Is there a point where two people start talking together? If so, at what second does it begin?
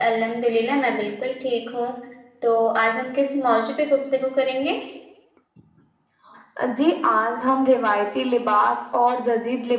none

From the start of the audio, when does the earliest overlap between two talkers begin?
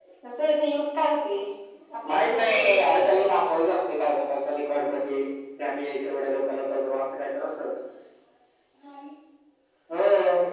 2.1 s

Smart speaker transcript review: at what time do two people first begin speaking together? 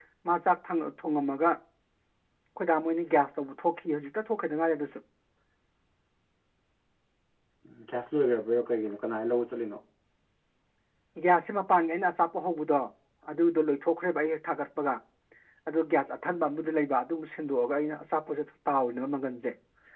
none

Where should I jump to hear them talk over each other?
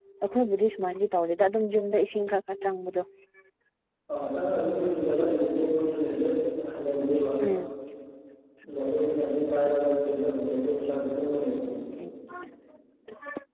none

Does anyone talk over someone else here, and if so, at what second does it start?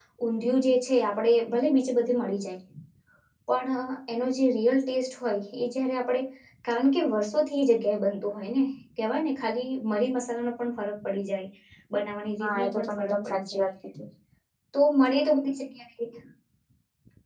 12.4 s

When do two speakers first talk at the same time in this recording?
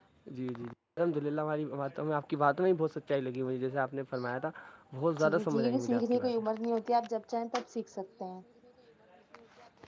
5.2 s

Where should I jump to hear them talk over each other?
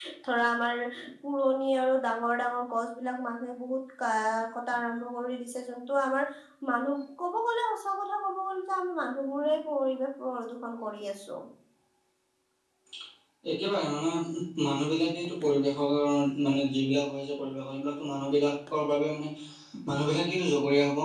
none

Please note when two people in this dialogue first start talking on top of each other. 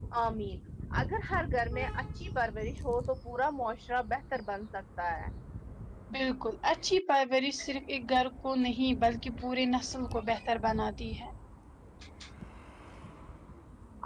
none

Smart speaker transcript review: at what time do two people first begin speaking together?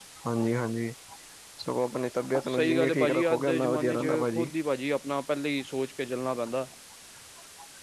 2.5 s

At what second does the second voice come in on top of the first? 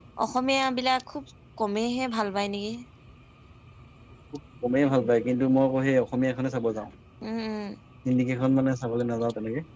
none

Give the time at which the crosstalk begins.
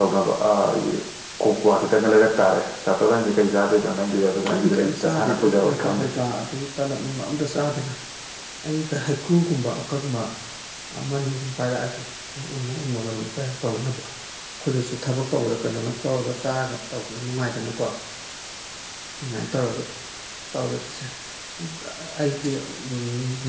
4.5 s

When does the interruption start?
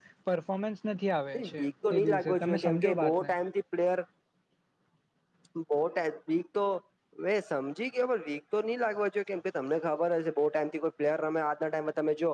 1.3 s

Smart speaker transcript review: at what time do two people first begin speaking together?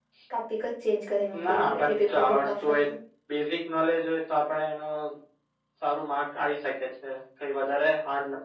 1.3 s

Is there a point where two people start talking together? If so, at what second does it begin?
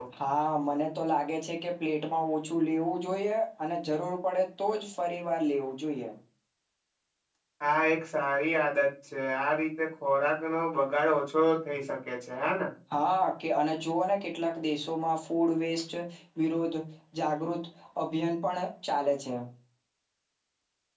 none

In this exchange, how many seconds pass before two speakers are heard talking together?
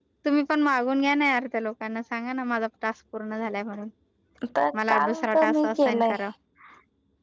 4.9 s

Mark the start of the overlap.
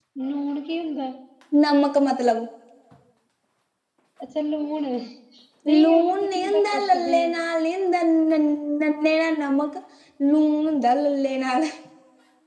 5.8 s

